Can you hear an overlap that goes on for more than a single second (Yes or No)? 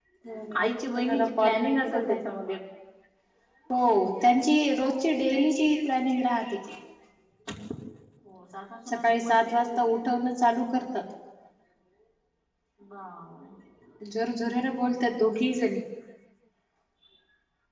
Yes